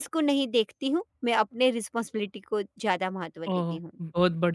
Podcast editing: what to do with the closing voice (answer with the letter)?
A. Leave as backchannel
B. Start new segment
B